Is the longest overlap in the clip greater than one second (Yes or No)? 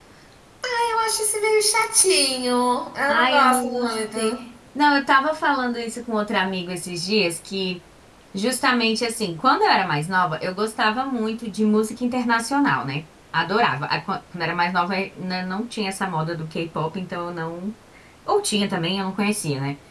Yes